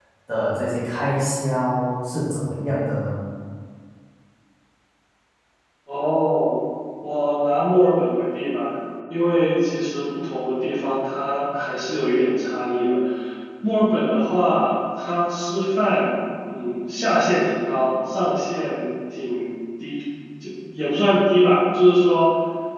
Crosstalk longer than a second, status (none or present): none